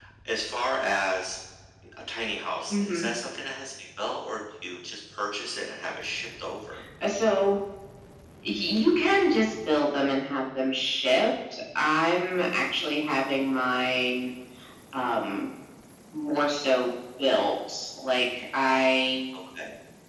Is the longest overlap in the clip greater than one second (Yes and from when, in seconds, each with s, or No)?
No